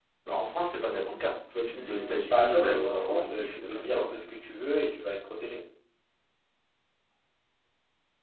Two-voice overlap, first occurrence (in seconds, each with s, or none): 1.7 s